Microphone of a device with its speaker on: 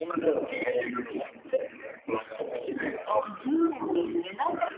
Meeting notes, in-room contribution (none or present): none